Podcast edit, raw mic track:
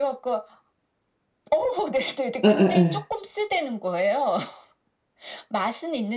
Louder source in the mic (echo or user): user